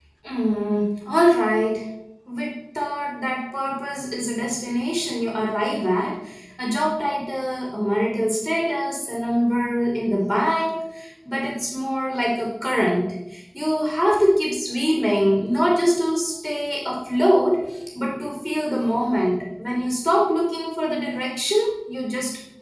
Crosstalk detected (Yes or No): No